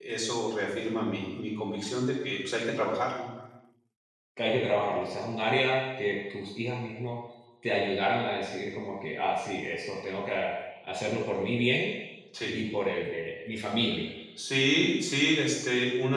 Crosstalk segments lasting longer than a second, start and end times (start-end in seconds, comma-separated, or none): none